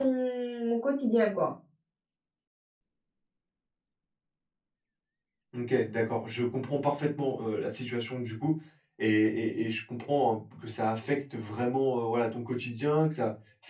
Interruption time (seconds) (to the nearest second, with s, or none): none